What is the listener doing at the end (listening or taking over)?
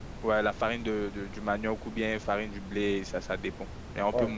taking over